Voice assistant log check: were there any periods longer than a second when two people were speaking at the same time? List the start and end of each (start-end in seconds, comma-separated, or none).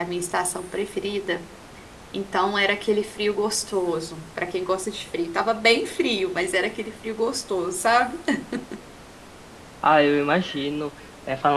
none